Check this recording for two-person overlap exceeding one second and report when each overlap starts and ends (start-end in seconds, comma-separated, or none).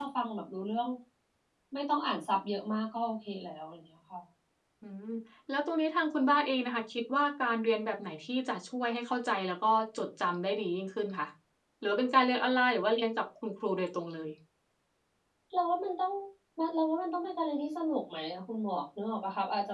none